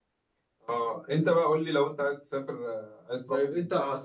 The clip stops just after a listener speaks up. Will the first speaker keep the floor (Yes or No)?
No